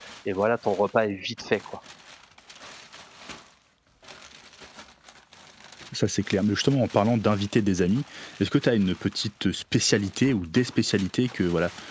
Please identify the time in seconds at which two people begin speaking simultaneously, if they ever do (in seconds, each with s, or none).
none